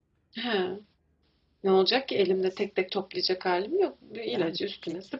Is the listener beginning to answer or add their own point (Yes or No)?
Yes